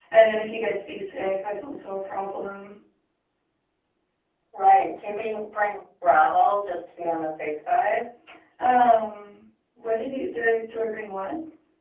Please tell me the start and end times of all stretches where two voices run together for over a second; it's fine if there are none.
none

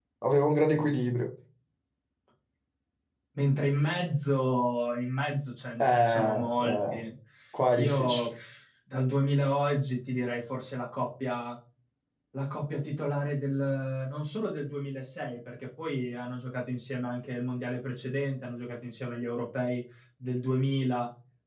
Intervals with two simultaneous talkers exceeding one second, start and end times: 5.8-7.0

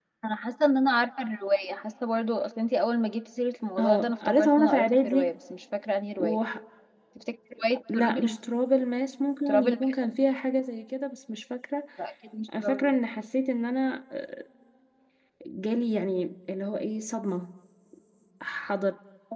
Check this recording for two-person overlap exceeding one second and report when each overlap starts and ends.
3.8-5.3

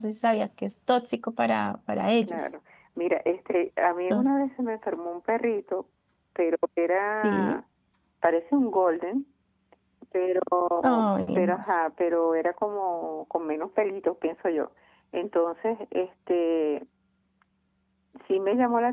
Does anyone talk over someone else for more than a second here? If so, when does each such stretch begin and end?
none

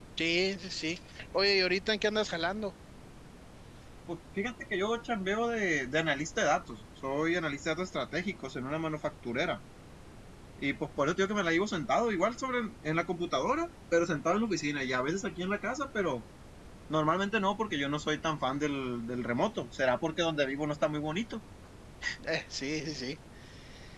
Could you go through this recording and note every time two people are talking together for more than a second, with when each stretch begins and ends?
none

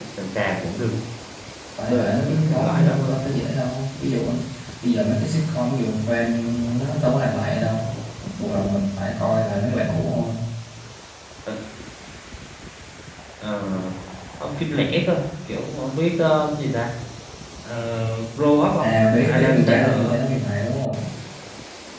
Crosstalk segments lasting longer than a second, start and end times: 1.9-3.2, 18.8-20.1

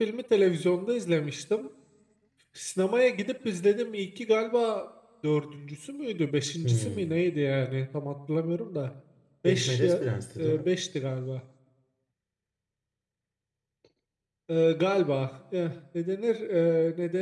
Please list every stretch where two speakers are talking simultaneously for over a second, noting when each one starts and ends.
none

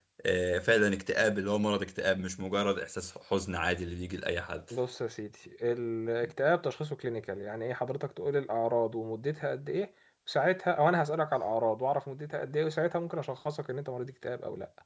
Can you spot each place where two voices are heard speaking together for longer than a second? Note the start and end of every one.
none

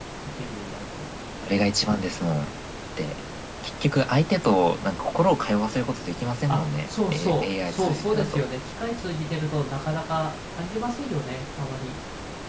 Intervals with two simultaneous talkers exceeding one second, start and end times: 6.5-8.4

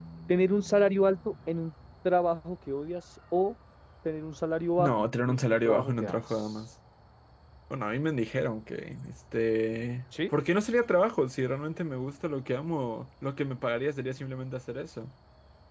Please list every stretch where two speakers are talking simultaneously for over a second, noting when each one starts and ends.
4.8-6.5

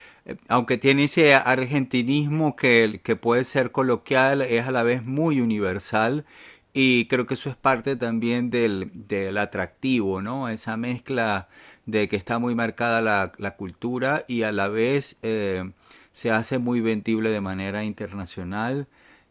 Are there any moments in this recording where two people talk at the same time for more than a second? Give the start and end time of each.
none

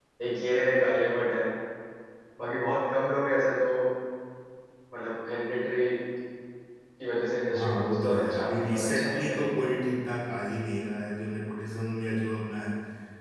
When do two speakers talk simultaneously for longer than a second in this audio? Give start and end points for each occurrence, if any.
7.5-9.8

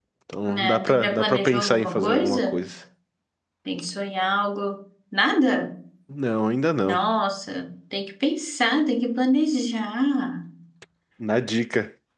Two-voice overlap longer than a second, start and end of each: 0.6-2.6

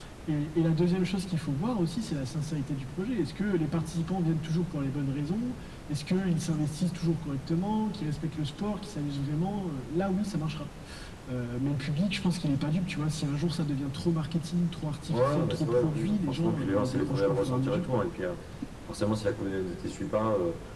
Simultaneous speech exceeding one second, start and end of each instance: 15.1-17.8

